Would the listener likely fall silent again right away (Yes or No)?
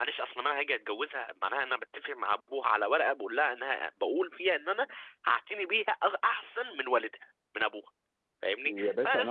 No